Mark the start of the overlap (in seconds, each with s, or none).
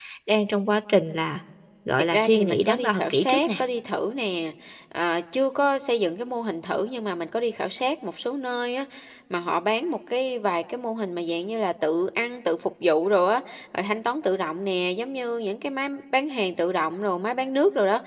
2.1 s